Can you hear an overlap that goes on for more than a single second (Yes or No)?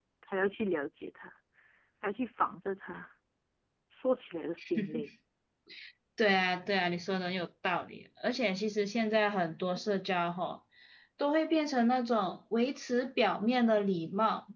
No